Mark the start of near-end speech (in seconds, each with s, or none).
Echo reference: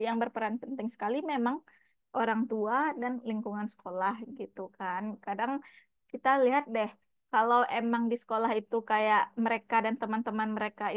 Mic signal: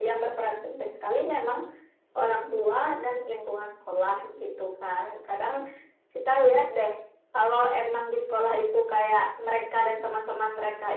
none